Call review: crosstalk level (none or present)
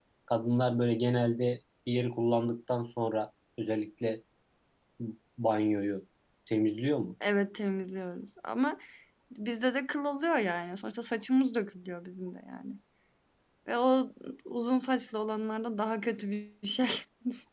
none